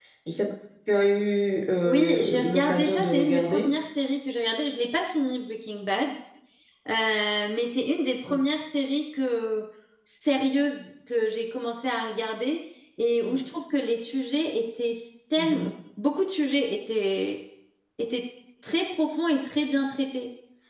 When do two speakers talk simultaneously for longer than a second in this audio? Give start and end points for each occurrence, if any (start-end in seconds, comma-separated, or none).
1.9-3.7